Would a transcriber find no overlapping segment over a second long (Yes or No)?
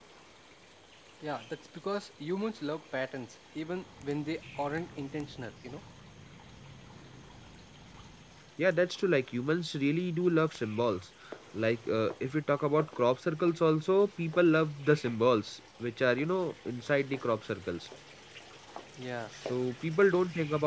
Yes